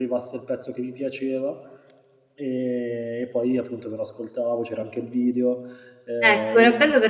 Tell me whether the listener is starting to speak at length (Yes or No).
Yes